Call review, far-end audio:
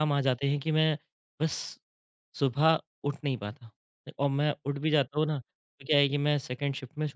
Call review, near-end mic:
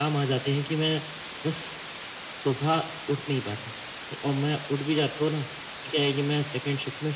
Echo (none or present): present